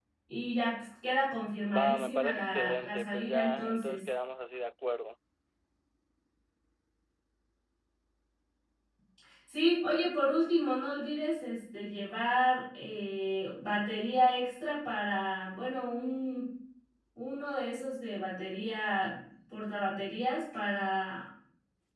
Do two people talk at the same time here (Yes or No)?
Yes